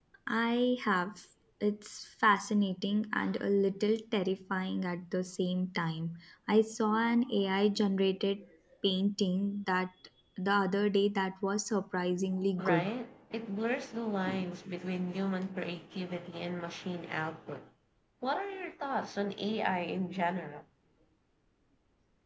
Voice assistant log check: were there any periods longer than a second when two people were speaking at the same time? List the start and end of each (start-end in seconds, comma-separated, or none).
none